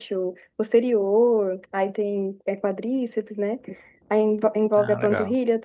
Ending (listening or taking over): listening